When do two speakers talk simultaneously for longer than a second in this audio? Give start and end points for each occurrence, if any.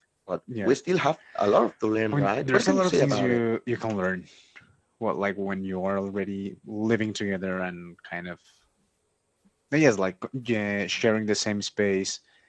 2.1-3.4

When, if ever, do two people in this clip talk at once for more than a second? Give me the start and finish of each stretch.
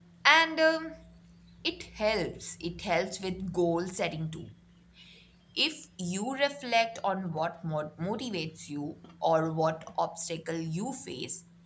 none

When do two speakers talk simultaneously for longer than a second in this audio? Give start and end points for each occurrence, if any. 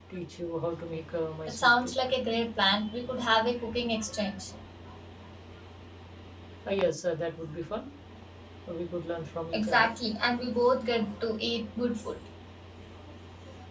none

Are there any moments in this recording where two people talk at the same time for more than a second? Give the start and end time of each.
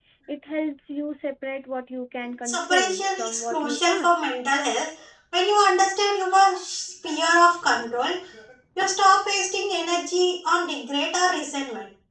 2.5-4.1

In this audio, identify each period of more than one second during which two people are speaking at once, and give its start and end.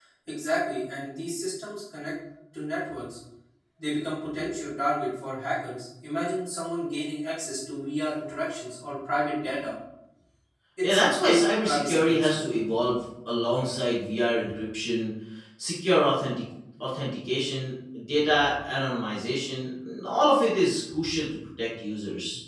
10.8-12.4

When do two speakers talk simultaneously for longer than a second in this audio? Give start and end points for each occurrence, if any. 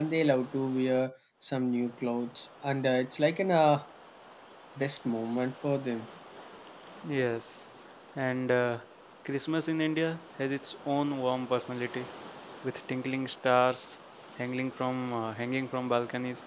none

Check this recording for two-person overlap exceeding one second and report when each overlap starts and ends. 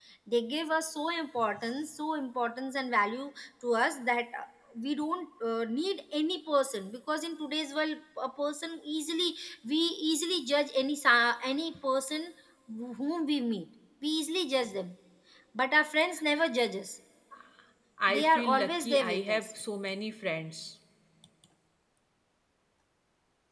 18.1-19.5

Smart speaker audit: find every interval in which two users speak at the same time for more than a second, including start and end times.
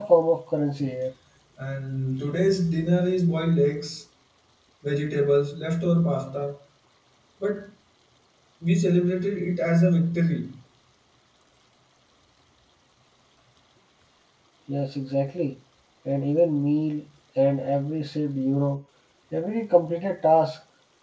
none

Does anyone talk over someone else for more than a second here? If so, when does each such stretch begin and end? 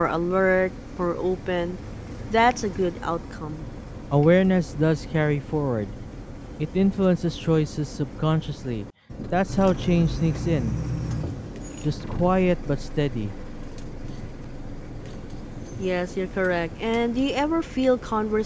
none

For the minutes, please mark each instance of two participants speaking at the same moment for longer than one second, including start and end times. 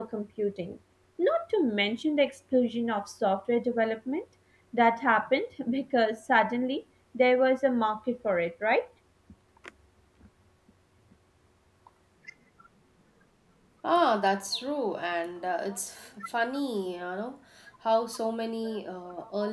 none

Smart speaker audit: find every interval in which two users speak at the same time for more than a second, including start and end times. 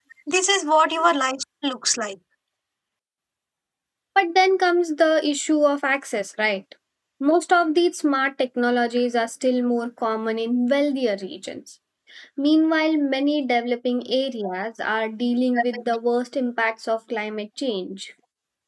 none

